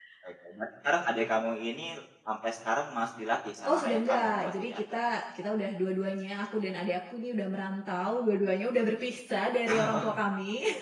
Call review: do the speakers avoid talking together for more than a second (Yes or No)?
No